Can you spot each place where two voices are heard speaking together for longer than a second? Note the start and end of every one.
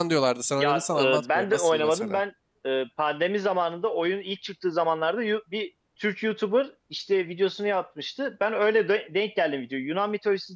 0.6-2.2

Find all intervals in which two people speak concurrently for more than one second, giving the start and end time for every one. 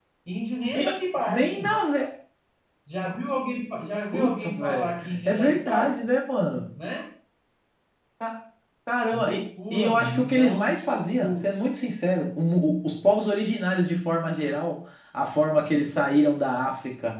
4.1-5.9, 9.1-10.6

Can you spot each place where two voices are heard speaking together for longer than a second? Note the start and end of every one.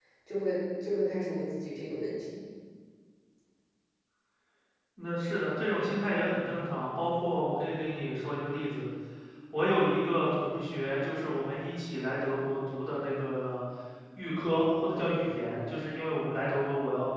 none

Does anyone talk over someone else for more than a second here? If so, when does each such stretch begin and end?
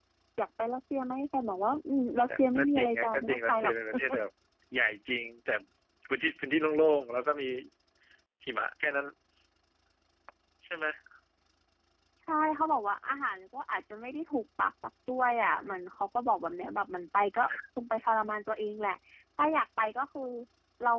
2.3-3.7

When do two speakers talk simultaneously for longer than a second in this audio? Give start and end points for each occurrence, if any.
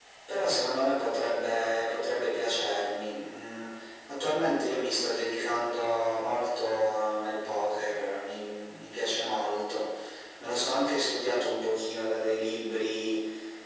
none

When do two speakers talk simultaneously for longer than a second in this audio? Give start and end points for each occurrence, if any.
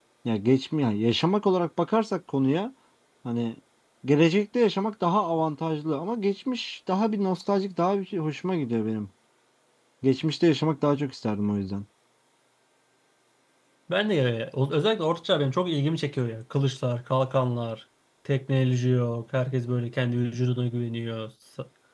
none

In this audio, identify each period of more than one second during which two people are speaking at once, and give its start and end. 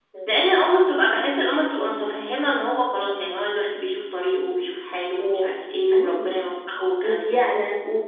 none

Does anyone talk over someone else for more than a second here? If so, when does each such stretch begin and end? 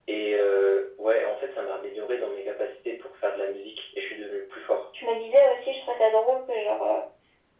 none

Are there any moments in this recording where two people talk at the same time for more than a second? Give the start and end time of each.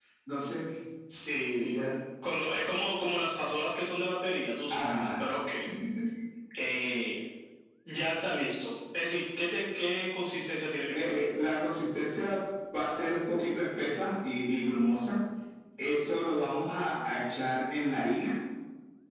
none

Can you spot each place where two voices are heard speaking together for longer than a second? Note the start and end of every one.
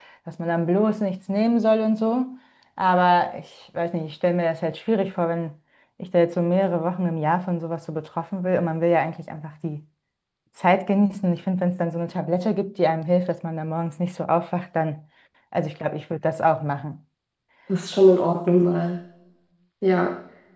none

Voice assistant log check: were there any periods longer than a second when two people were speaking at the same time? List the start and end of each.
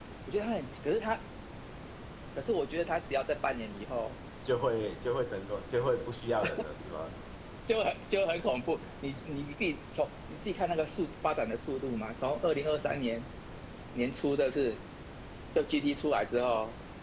none

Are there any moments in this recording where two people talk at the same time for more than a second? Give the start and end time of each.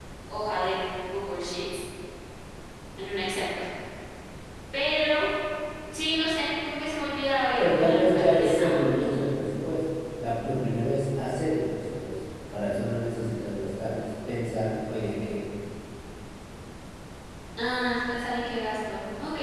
7.6-9.3

